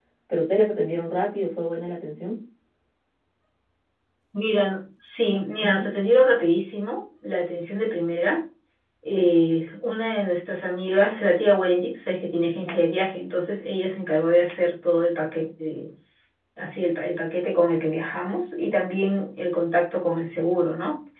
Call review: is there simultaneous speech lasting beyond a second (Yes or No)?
No